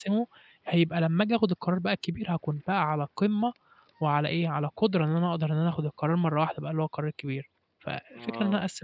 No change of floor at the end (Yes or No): No